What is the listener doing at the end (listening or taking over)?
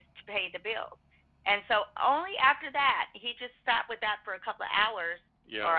listening